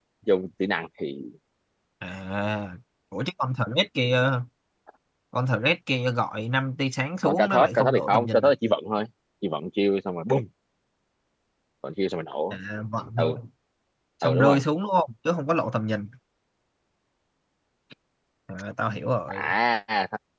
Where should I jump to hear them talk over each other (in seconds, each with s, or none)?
7.2 s